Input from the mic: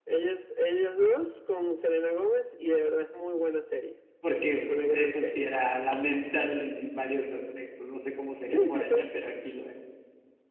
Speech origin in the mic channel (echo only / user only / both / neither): both